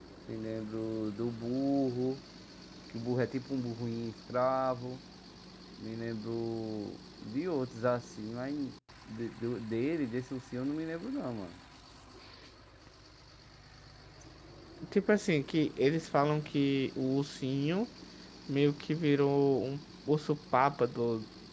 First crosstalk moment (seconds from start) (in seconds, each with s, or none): none